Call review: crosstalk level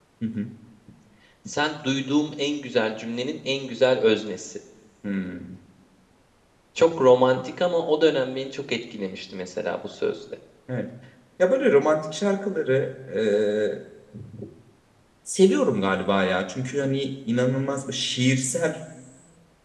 none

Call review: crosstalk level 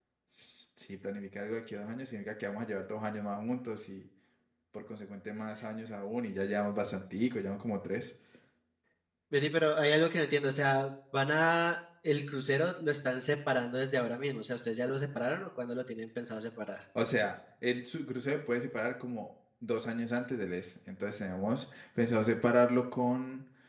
none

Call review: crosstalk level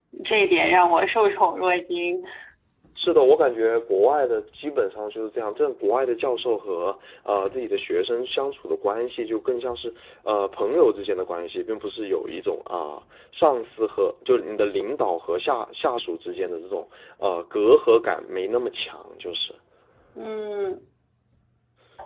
none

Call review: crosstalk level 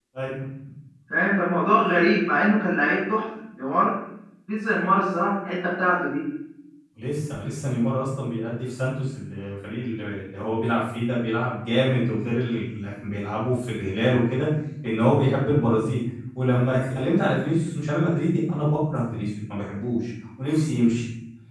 none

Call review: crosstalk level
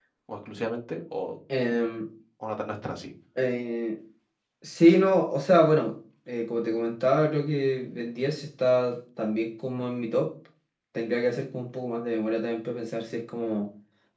none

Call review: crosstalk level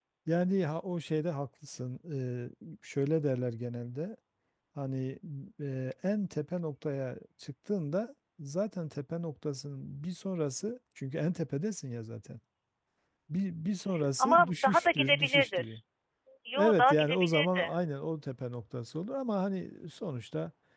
present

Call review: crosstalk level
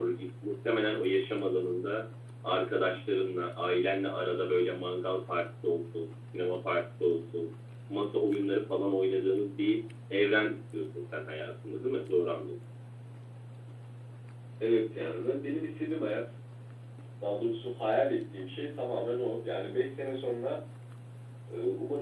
none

